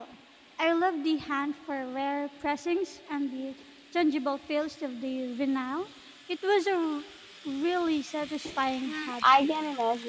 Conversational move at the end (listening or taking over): taking over